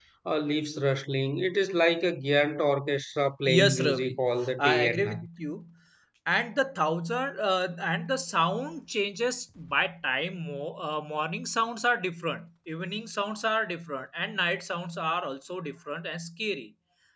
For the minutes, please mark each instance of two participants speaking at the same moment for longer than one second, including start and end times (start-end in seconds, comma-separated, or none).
3.4-5.3